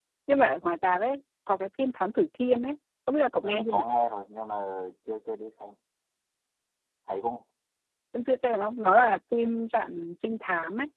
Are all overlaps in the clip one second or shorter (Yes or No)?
Yes